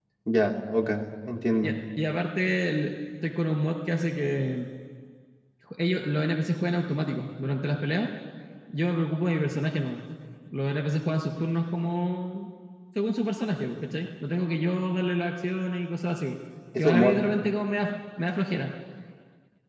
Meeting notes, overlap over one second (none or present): none